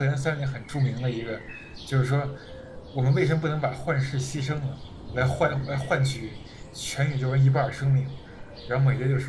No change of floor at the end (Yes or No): Yes